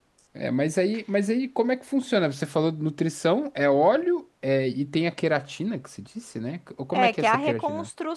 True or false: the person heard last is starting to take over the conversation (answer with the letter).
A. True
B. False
A